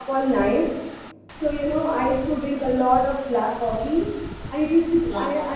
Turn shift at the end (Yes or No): No